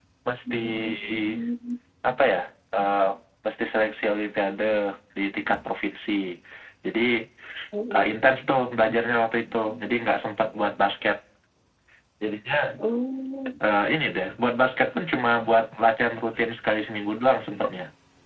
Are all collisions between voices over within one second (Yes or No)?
Yes